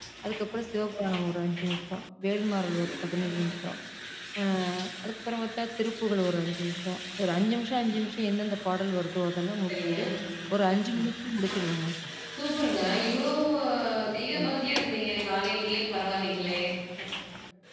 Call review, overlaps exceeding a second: none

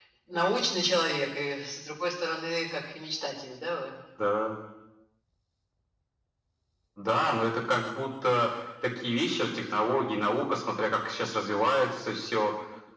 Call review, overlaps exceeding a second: none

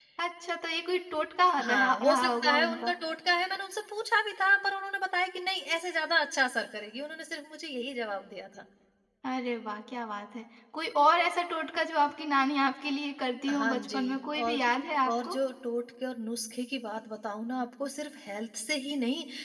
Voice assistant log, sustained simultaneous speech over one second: present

